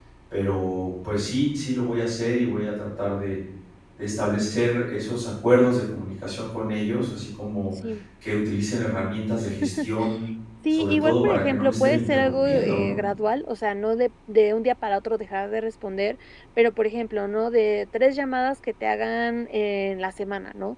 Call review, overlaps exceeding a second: present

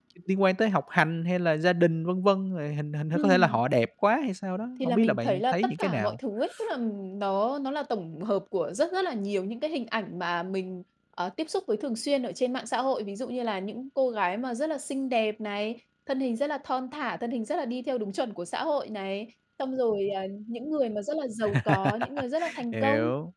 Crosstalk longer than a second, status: present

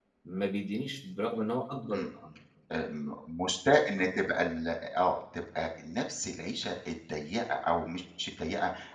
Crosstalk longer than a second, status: none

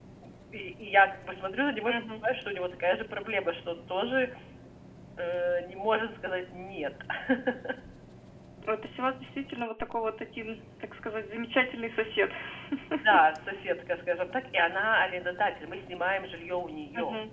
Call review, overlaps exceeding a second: none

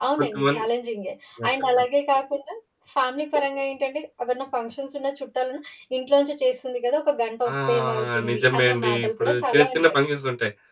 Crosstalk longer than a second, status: present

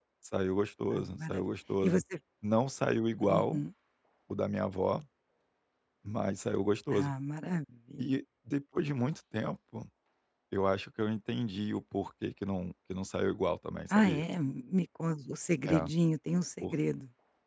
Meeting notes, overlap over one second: none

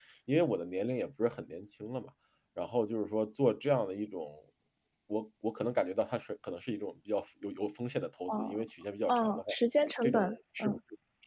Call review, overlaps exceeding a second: none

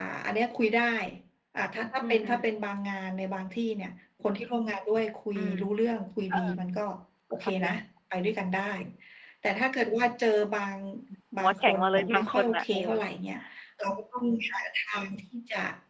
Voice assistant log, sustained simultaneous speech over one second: present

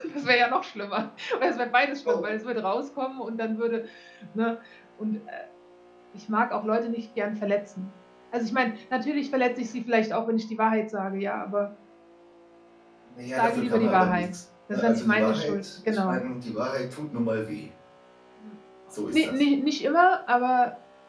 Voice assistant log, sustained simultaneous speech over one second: present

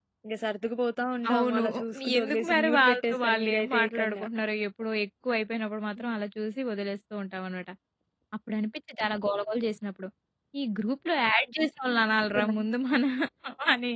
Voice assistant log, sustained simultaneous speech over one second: present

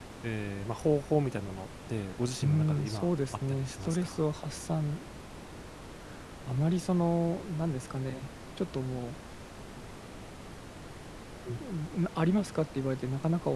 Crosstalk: present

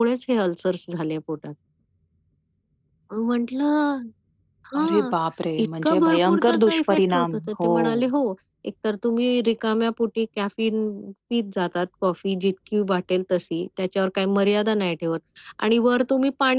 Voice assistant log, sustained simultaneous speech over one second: present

